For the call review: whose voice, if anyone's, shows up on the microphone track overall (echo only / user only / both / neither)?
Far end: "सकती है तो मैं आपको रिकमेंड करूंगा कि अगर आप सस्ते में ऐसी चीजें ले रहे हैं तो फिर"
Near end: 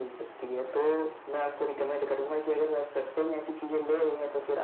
echo only